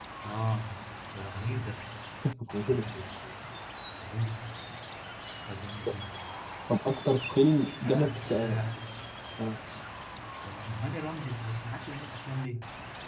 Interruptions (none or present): present